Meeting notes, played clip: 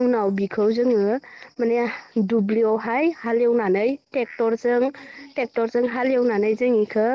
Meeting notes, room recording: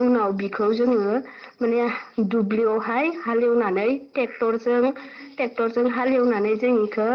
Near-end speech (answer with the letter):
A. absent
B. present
A